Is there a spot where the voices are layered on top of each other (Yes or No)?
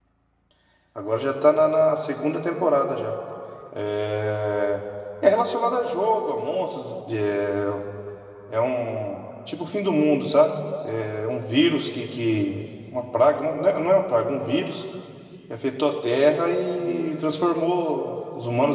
No